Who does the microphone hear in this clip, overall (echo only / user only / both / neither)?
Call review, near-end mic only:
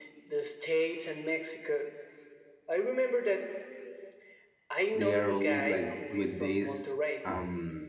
both